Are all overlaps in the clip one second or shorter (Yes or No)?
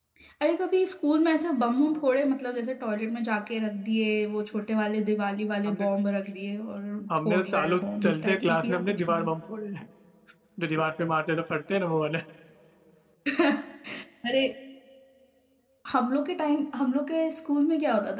No